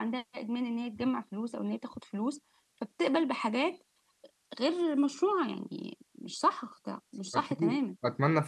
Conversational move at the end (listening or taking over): taking over